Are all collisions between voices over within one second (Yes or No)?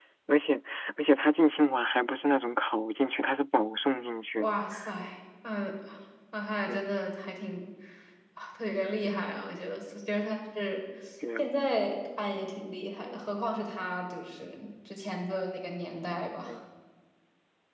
Yes